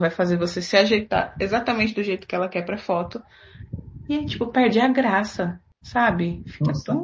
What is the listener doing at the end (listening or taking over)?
taking over